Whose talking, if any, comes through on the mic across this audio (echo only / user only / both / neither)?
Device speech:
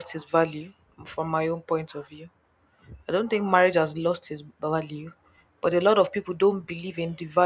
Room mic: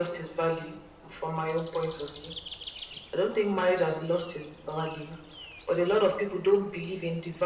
echo only